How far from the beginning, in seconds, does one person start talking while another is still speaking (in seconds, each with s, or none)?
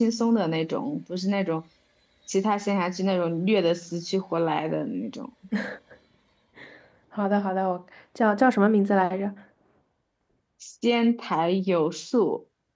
none